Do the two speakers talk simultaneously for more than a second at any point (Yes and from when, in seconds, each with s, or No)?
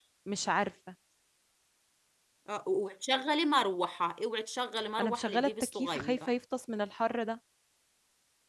Yes, from 5.0 s